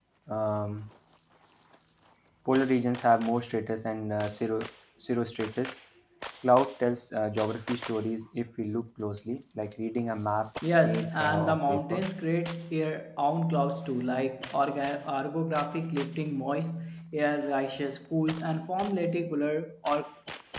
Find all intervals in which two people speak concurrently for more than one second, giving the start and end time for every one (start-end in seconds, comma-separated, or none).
10.8-12.0